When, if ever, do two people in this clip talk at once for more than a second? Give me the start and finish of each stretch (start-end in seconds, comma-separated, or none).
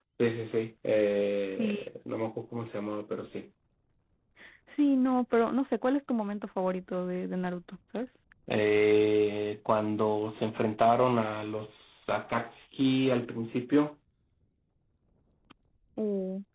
none